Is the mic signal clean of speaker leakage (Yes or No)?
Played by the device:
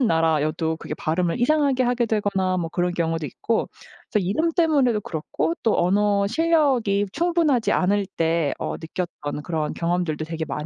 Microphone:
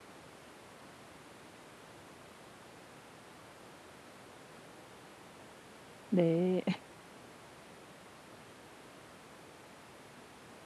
Yes